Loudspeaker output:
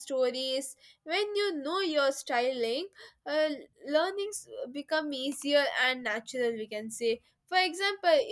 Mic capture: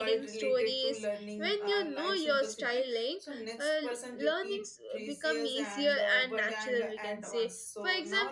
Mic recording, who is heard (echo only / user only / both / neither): both